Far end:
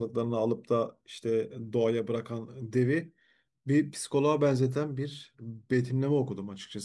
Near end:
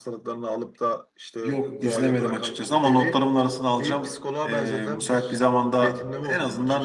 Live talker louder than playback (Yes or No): Yes